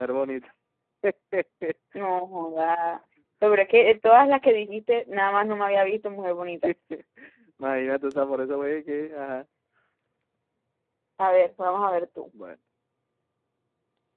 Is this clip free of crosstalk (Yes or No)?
Yes